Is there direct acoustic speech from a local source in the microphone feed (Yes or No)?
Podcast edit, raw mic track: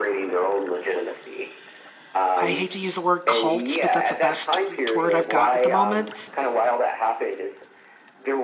Yes